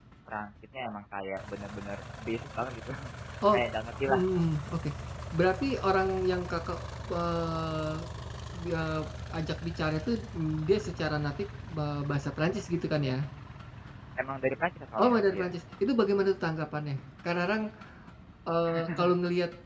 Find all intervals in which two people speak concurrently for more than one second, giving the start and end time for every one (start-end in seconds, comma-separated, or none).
none